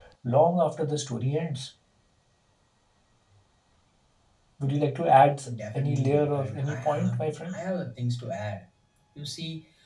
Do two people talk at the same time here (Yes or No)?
Yes